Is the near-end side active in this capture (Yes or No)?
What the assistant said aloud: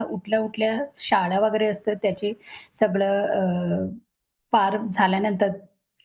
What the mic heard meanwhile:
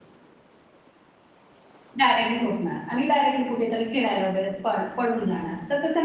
Yes